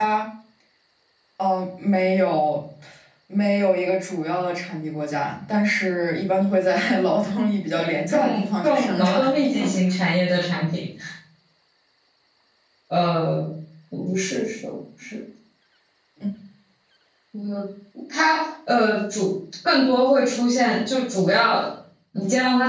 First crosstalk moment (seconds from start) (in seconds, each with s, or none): 7.8 s